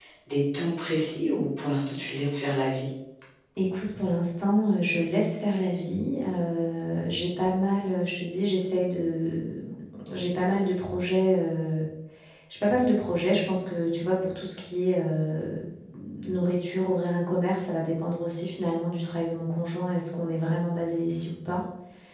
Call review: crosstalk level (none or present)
none